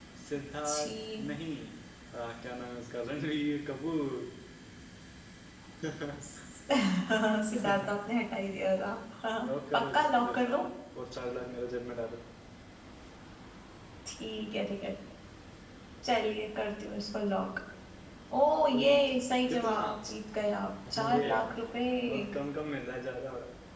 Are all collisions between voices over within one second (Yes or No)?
No